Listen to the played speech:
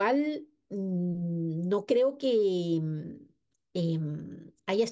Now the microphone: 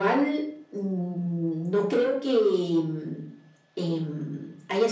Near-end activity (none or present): none